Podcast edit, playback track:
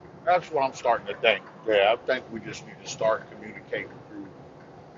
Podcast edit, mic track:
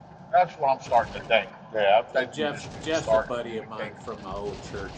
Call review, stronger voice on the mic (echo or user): echo